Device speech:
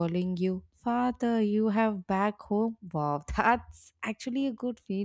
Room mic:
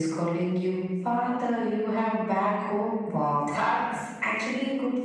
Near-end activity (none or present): none